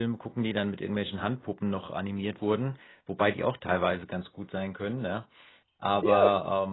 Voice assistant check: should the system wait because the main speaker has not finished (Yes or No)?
Yes